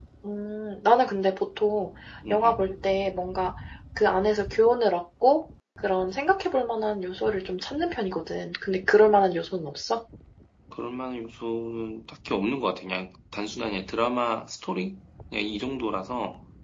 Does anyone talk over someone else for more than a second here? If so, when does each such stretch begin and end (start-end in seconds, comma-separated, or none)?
none